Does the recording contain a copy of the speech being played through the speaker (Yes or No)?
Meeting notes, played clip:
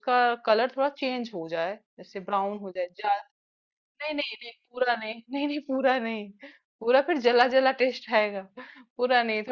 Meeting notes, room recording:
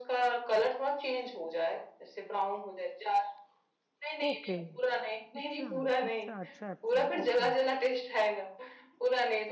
Yes